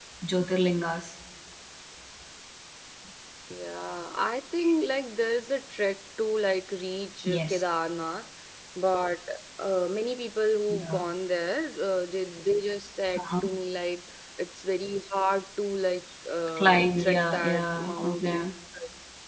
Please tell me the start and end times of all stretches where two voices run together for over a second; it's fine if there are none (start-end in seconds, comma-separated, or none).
16.6-18.4